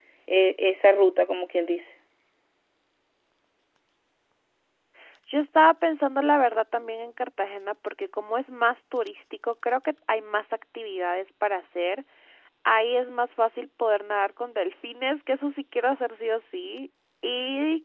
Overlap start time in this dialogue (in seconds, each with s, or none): none